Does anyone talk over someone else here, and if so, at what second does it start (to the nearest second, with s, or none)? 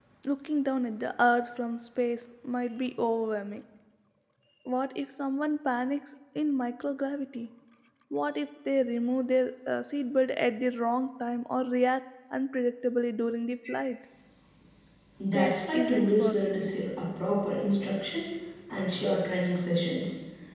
15 s